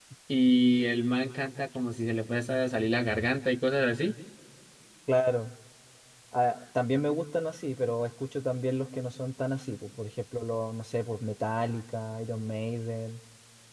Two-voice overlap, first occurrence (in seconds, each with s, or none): none